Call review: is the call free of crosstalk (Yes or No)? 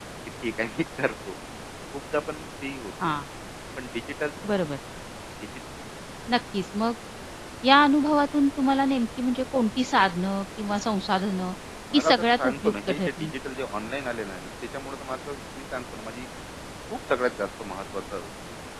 No